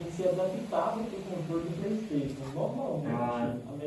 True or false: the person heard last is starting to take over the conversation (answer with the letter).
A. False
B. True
A